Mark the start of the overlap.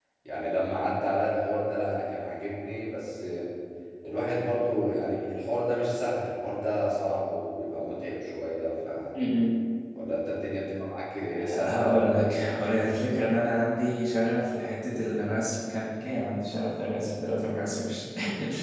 11.4 s

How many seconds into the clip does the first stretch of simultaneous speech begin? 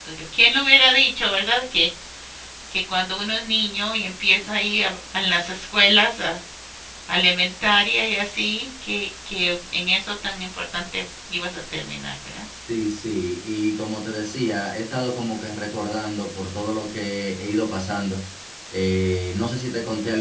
none

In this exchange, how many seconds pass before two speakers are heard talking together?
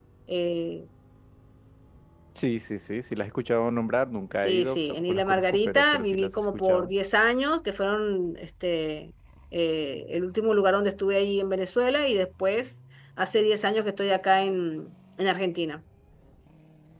4.4 s

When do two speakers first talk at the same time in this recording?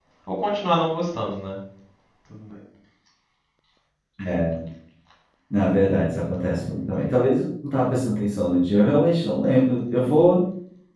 none

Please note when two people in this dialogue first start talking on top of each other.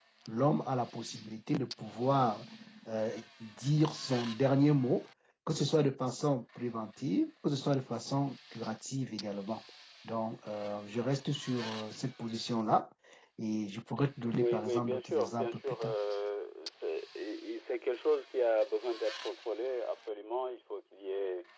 14.3 s

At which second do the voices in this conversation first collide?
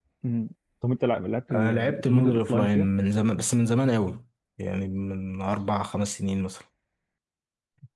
1.5 s

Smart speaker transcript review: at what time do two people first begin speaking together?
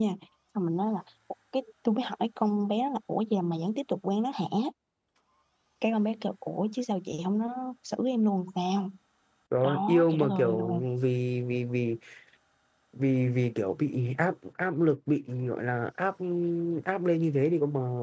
9.6 s

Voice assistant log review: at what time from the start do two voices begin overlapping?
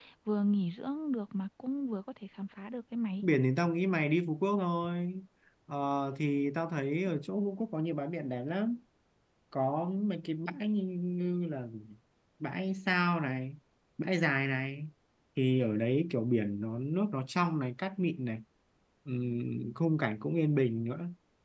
none

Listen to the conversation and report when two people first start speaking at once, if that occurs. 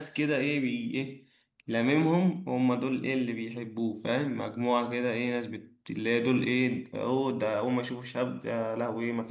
none

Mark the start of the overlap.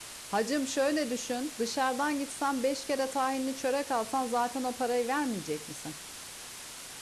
none

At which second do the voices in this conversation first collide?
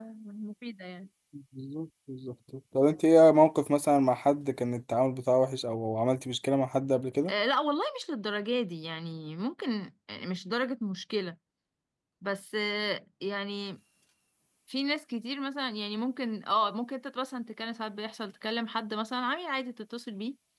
none

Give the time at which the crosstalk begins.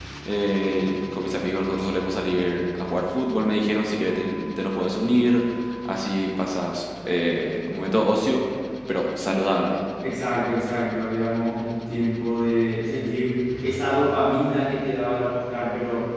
none

